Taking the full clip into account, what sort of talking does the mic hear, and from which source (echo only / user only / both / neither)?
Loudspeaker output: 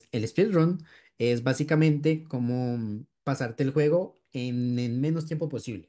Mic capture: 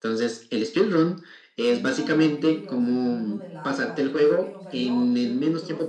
both